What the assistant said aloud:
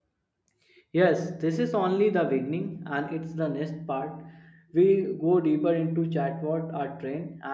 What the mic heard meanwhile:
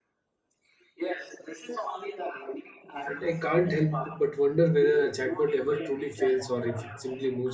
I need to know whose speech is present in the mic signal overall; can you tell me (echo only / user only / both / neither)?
both